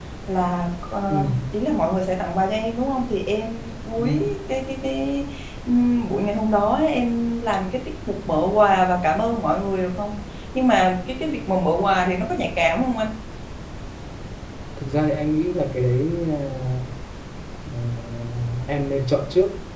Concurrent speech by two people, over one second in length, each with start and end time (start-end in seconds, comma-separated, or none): none